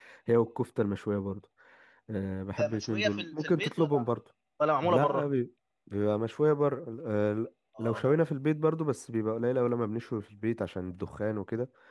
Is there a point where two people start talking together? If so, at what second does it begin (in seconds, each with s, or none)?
2.6 s